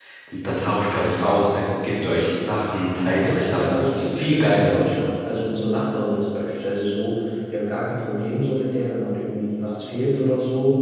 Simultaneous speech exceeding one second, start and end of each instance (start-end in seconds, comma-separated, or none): 3.2-4.8